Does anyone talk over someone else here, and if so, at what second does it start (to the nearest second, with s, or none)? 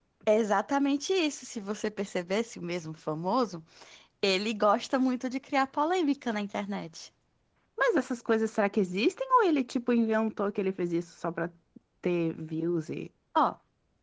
none